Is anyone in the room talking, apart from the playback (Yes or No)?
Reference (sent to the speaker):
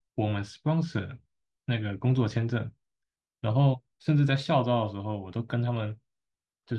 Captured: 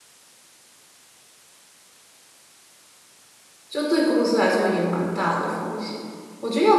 Yes